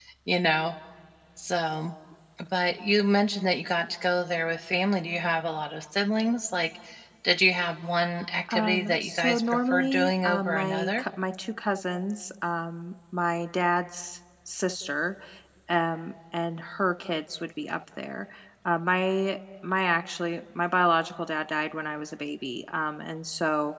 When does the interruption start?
8.5 s

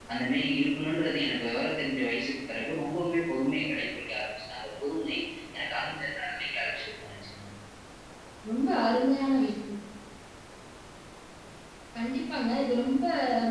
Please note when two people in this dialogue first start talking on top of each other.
none

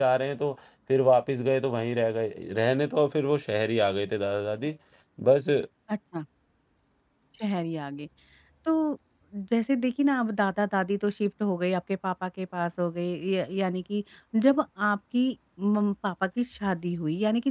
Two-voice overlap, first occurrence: none

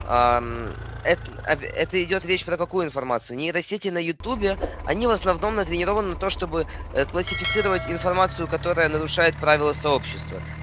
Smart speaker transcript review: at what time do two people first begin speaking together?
none

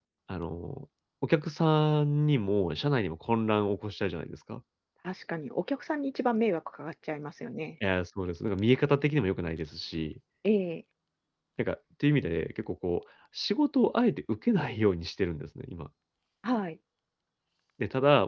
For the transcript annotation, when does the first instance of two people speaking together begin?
none

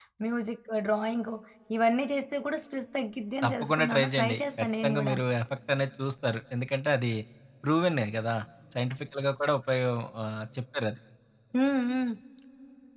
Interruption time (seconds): 3.4 s

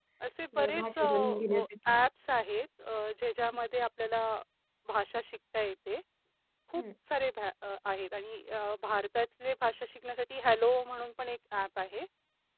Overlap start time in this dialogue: 0.6 s

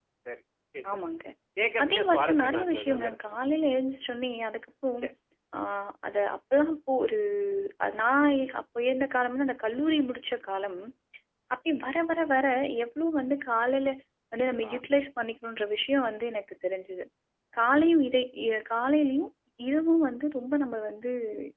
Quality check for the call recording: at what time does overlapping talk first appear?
1.8 s

